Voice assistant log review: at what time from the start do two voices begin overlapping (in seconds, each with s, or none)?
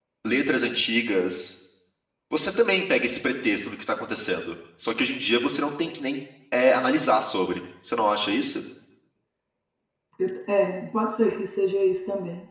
none